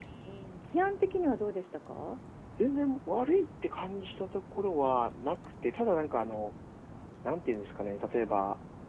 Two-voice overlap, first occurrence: none

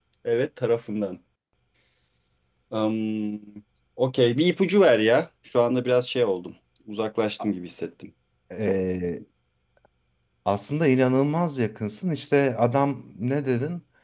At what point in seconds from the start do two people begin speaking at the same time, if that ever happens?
none

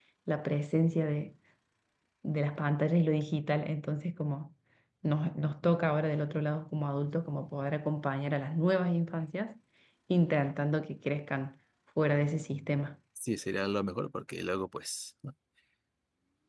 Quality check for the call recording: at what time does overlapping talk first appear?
none

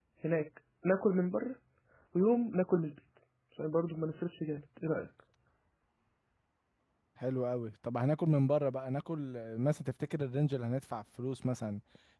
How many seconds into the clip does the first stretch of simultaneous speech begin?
none

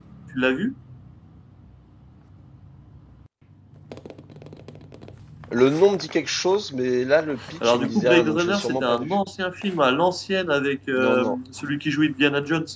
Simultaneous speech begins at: 7.7 s

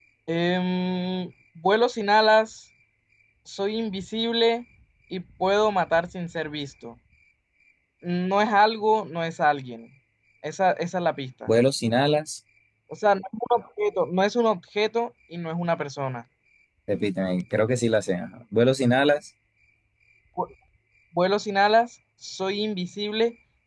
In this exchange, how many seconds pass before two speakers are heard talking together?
none

